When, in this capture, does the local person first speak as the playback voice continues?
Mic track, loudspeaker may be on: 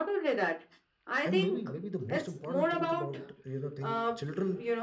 1 s

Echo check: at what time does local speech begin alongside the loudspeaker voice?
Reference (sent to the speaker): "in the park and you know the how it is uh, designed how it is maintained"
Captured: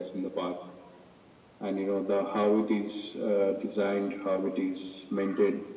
none

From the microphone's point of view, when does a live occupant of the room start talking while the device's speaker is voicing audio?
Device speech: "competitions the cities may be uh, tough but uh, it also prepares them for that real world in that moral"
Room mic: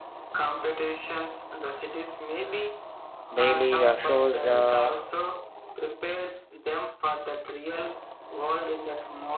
3 s

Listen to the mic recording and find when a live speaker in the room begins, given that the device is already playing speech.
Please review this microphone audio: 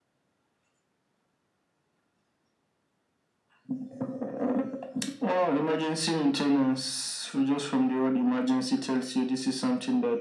none

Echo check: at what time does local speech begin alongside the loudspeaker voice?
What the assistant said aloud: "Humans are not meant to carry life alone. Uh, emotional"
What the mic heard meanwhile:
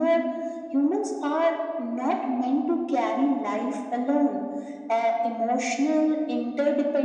none

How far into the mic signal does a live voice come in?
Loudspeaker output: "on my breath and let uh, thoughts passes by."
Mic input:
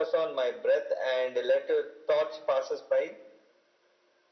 none

